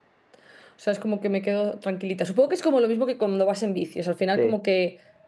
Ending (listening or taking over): listening